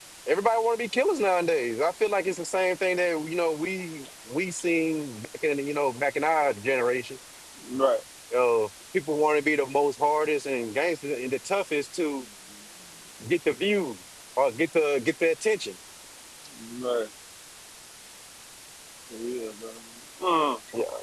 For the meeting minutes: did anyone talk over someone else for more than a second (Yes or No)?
No